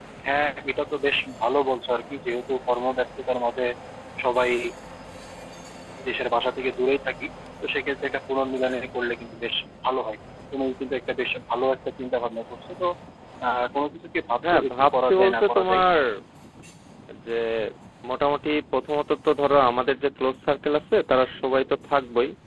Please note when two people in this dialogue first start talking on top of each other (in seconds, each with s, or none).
14.4 s